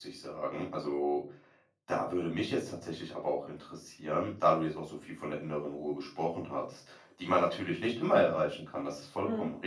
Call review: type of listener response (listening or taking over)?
listening